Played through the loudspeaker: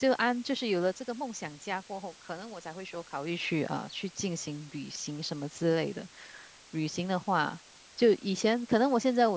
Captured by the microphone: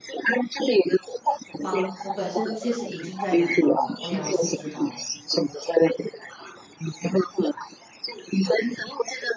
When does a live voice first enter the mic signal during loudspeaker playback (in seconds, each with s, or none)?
1.6 s